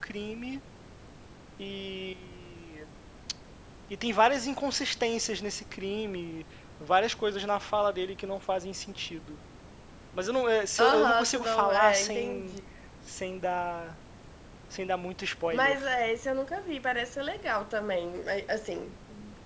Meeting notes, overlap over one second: present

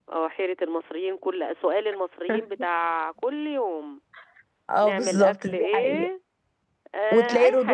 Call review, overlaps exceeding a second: present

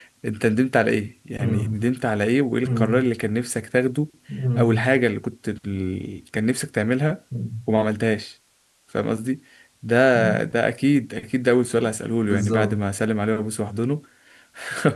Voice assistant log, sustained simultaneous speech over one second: none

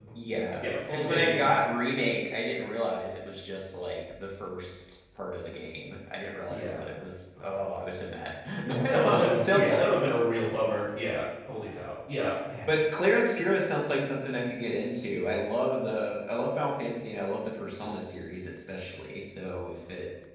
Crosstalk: present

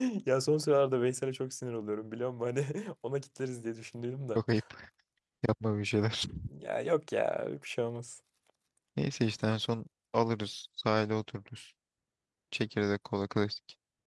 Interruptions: none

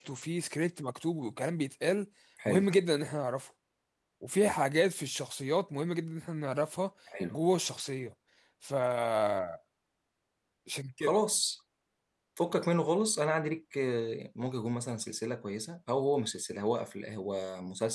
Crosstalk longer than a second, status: none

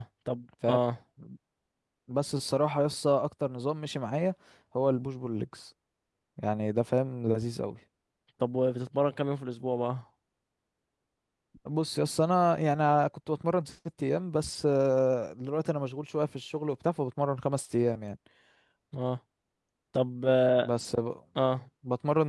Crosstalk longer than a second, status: none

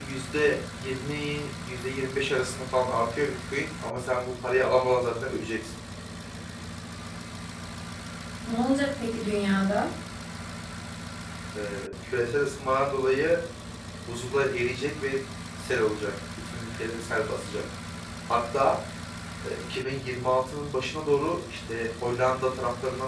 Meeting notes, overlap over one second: none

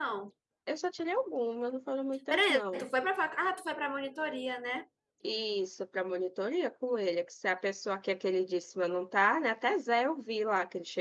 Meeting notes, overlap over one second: none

